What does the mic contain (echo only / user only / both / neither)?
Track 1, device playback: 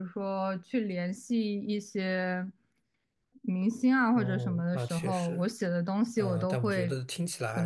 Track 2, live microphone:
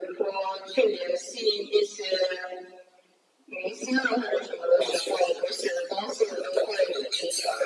echo only